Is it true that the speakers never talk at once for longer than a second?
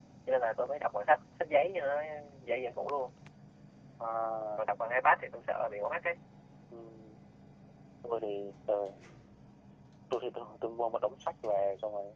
Yes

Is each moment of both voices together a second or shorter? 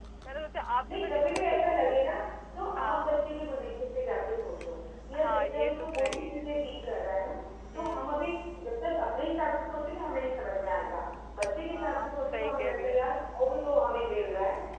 No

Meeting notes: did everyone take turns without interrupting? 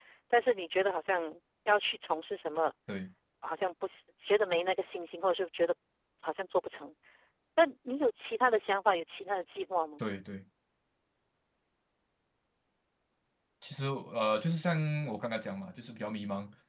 Yes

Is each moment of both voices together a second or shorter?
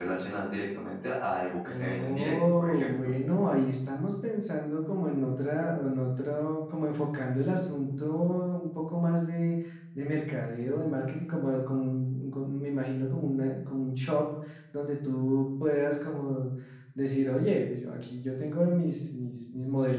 No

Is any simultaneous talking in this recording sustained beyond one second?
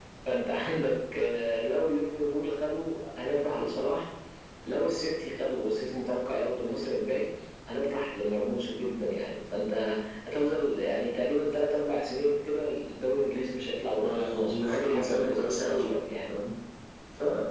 Yes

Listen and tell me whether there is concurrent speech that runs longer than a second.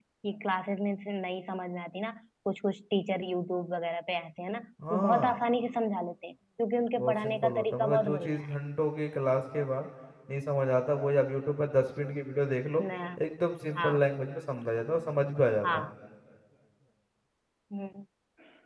Yes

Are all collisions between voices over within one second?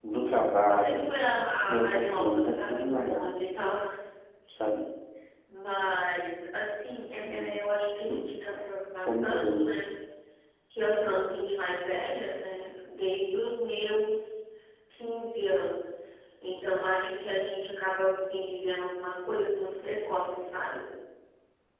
No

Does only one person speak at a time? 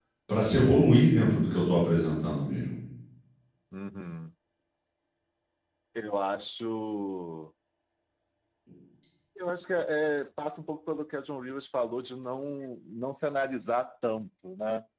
Yes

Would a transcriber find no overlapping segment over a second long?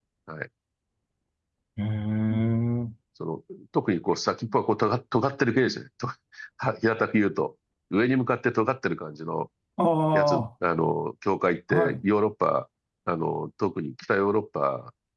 Yes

